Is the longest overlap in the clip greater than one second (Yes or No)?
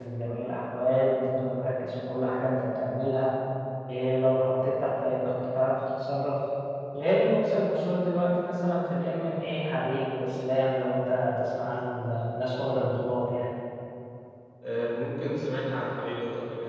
No